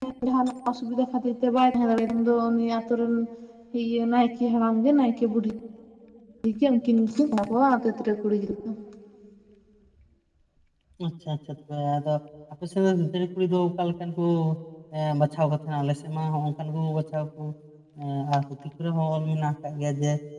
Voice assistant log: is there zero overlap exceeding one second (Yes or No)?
Yes